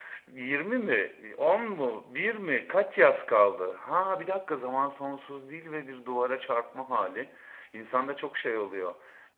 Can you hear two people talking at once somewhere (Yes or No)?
No